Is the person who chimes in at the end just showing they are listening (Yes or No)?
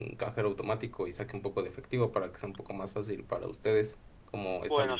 No